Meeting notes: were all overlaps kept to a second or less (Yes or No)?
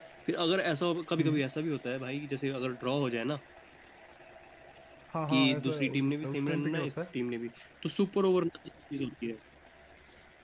No